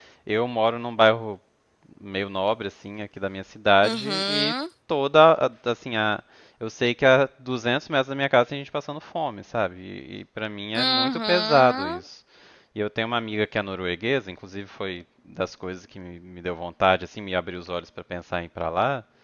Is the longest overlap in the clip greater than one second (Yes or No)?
Yes